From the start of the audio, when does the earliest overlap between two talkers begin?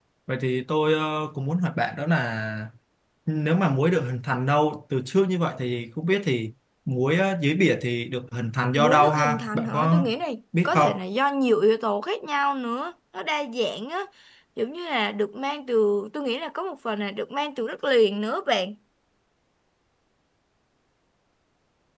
9 s

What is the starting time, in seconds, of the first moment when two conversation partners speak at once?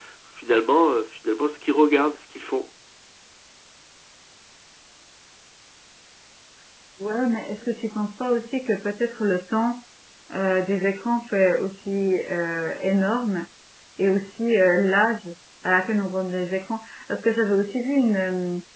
none

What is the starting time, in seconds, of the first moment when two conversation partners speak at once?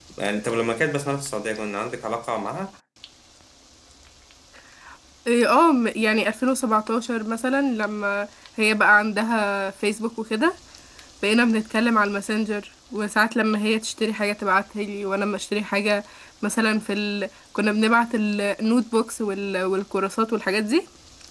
none

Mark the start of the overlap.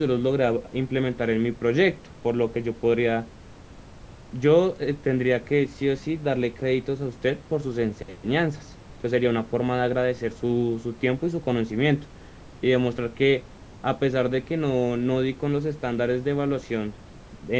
none

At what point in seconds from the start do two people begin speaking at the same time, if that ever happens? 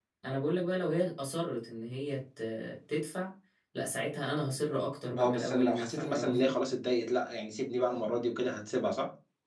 5 s

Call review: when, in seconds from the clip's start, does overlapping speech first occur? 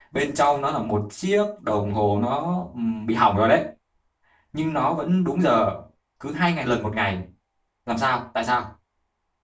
none

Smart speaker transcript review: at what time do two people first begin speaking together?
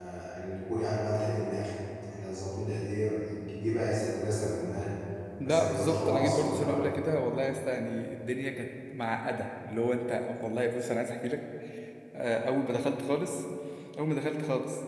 5 s

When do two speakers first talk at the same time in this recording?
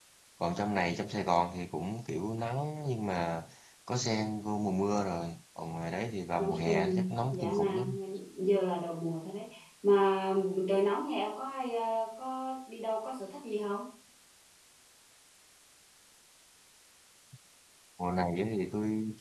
6 s

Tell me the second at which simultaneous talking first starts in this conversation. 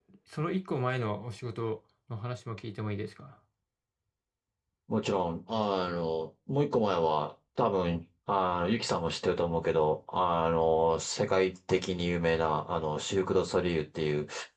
none

